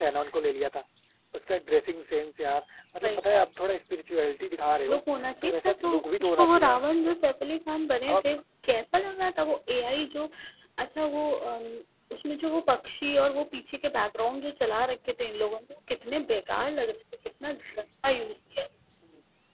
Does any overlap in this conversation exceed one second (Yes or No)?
Yes